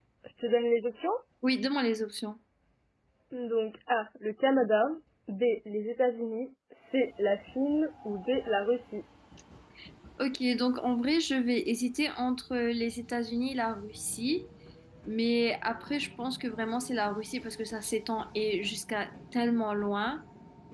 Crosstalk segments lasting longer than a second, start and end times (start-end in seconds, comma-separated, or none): none